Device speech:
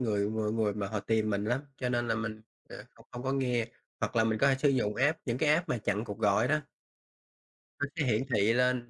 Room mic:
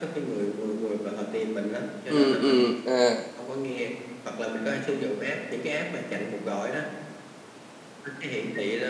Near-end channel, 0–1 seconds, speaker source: echo only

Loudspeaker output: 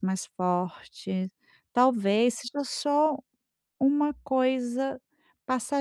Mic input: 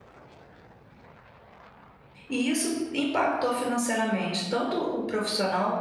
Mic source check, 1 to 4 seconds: user only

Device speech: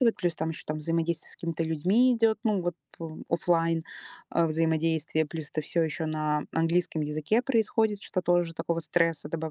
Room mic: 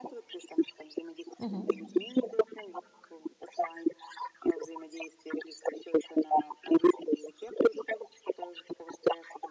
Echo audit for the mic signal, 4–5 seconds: echo only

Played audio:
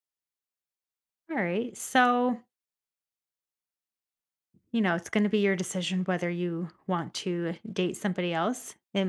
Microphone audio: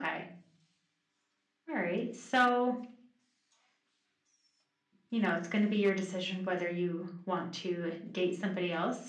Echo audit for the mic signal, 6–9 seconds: echo only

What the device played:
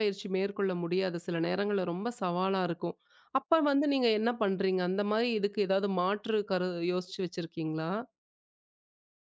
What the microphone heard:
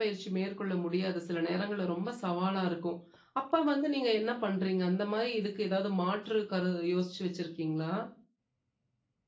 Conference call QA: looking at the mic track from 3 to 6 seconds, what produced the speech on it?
echo only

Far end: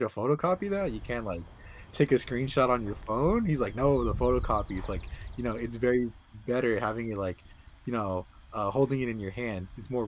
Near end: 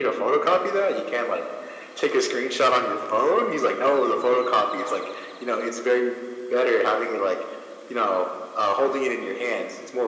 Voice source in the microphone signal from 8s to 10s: echo only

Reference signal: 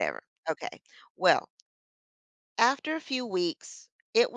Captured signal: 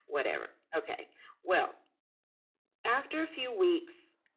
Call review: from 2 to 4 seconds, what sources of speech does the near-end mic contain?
echo only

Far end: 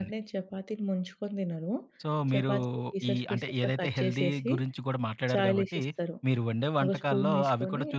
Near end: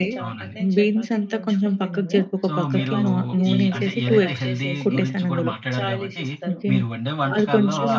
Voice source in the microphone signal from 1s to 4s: both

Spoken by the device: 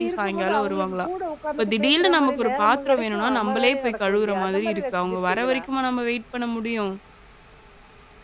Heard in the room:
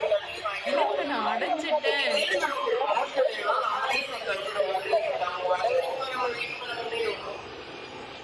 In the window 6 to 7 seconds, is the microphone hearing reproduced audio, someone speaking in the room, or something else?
echo only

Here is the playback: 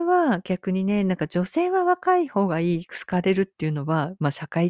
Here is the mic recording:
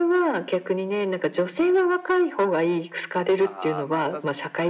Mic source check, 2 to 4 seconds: both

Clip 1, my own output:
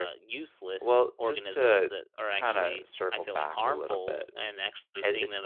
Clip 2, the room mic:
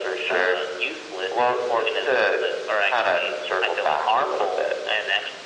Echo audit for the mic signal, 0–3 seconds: echo only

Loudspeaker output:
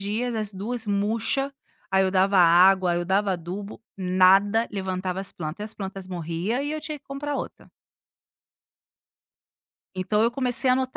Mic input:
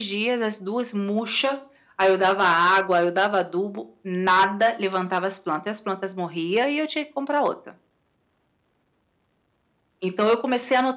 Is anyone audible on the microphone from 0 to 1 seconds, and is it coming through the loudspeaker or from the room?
echo only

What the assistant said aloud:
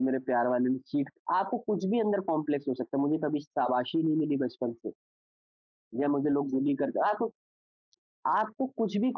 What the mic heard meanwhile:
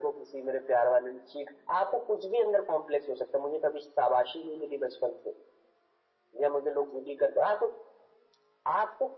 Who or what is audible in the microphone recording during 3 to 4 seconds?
echo only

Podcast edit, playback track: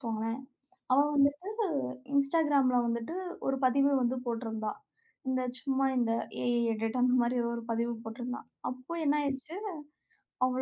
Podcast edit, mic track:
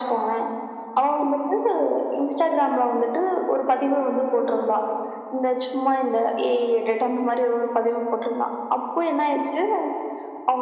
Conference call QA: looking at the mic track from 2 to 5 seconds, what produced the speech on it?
echo only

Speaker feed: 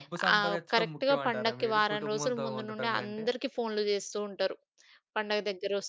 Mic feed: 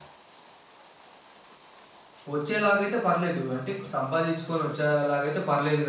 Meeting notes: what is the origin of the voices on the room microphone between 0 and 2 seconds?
neither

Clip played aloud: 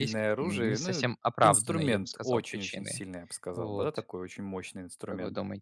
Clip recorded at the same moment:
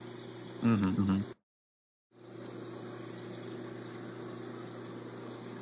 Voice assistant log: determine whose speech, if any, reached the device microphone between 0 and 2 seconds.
user only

